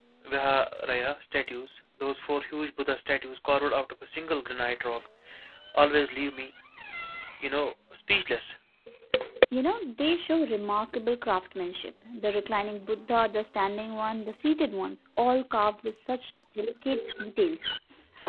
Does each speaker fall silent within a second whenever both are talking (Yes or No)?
Yes